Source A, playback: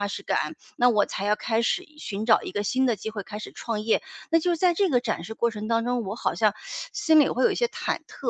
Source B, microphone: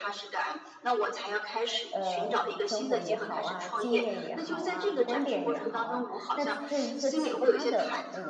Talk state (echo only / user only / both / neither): both